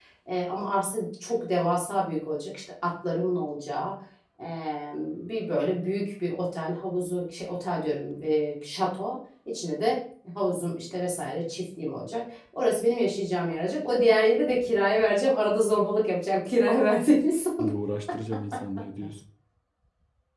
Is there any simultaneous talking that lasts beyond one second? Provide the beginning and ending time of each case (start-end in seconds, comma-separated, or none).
none